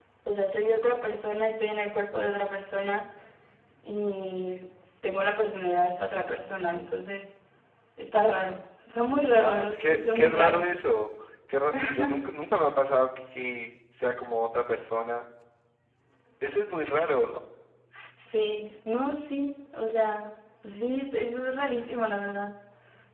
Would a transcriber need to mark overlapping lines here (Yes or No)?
Yes